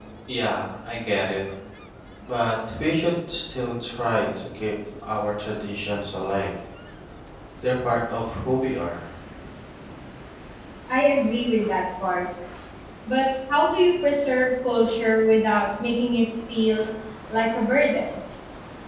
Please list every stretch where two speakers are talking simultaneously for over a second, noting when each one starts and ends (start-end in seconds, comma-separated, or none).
none